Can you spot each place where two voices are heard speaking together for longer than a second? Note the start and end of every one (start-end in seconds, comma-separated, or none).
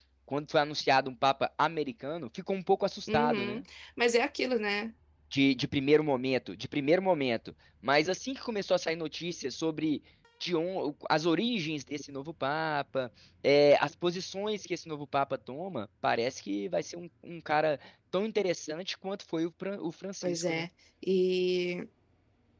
none